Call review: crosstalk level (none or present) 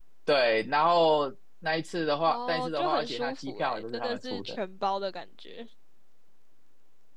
present